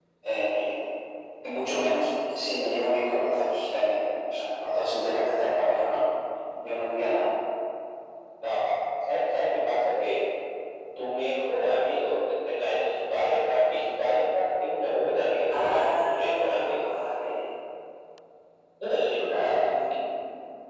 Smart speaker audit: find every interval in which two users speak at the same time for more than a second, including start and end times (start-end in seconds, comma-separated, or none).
15.5-16.8